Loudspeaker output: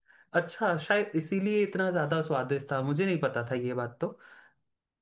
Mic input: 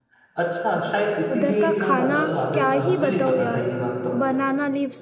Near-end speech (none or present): present